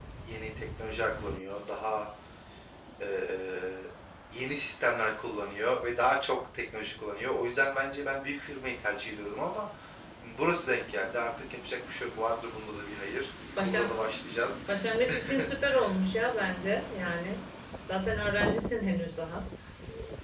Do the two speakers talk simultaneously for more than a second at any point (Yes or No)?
No